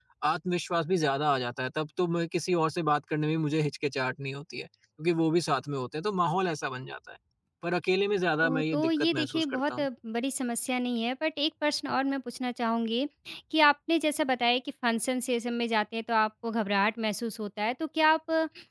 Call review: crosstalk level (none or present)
present